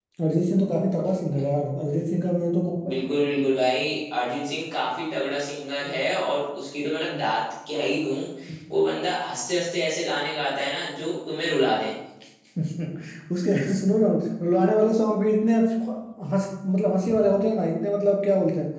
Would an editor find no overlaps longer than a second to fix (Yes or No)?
Yes